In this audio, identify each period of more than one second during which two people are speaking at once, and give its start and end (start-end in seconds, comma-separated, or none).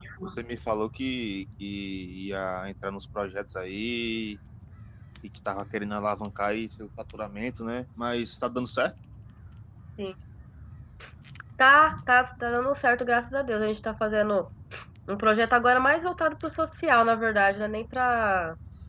none